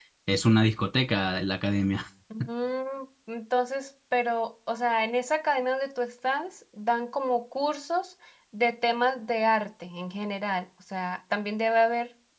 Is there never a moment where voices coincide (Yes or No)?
Yes